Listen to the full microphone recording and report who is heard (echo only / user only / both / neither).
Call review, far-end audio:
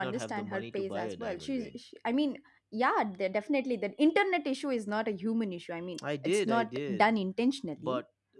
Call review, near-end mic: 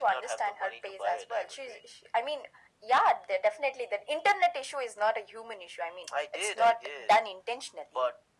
echo only